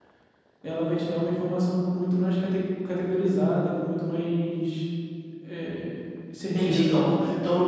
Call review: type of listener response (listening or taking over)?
taking over